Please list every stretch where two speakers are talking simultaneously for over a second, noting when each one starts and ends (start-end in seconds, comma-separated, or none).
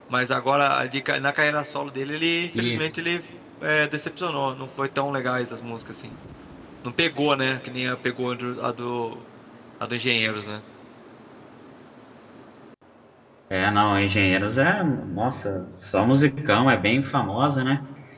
none